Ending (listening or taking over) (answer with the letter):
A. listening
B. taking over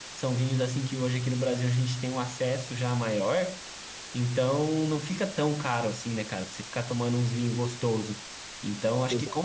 A